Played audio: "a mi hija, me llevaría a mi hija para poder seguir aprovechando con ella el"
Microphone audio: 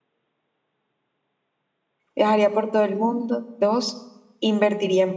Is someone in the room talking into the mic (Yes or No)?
Yes